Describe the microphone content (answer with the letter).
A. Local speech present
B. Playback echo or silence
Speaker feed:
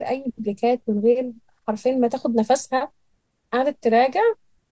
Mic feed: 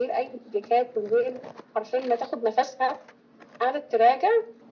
B